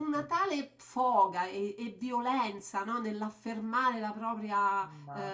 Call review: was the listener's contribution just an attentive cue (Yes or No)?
No